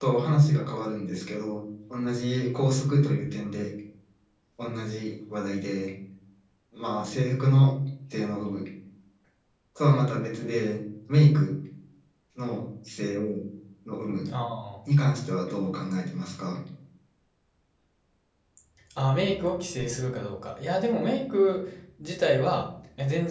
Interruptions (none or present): none